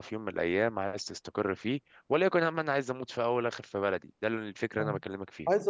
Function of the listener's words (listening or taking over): taking over